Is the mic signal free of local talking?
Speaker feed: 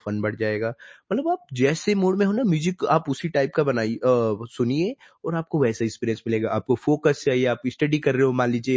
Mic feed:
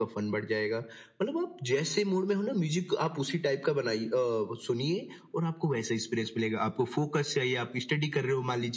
Yes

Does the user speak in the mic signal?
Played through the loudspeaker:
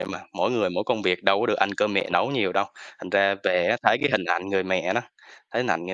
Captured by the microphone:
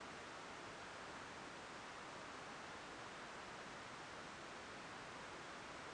No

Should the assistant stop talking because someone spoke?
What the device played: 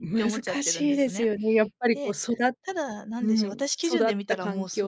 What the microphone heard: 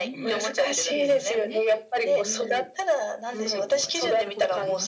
Yes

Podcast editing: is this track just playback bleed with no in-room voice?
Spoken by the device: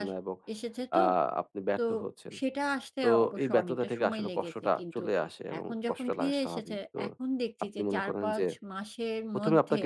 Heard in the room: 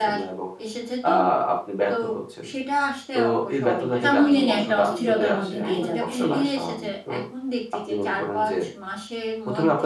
No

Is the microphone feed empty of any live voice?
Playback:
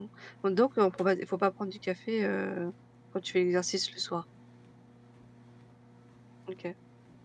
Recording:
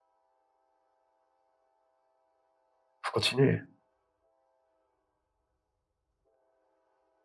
No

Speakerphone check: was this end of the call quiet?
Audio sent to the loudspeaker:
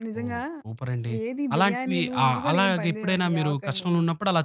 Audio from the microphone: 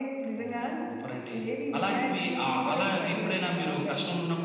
Yes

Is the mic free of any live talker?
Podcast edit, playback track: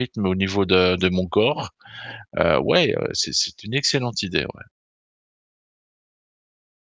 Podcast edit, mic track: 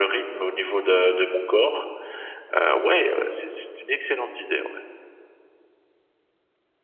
Yes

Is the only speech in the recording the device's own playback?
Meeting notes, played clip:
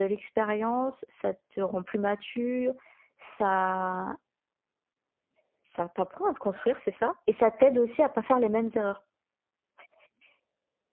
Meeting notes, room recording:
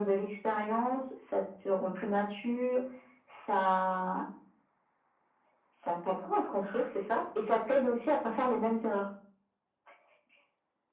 Yes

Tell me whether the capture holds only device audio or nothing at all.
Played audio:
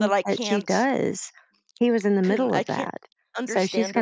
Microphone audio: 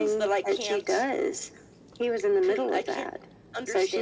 Yes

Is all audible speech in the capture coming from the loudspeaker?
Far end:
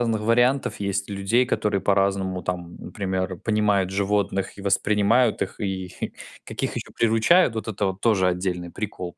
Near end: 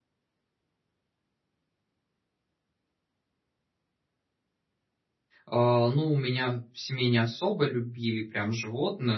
No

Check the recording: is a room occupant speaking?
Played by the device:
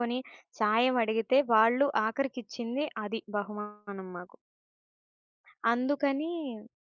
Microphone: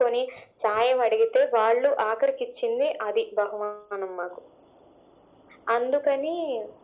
No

